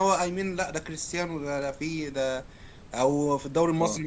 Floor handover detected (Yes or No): No